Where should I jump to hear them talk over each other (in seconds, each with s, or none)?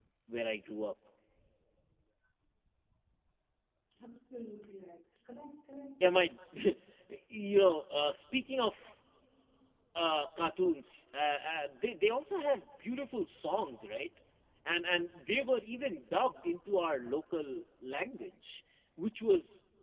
none